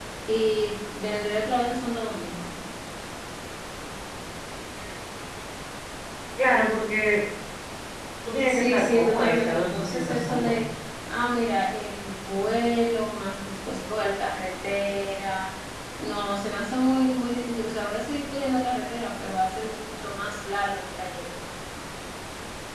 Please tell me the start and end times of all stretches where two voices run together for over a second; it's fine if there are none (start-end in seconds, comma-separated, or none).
8.5-10.6